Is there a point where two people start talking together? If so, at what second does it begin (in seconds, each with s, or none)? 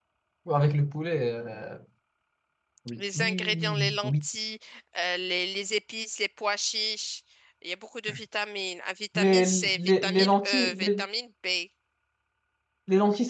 3.0 s